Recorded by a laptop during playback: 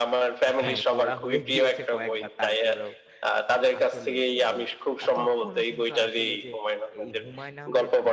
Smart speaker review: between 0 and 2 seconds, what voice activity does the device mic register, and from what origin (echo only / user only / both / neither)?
both